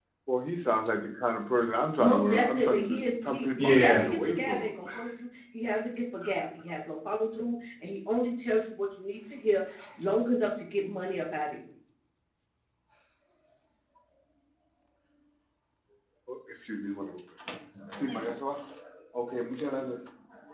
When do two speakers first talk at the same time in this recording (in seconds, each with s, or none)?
2.0 s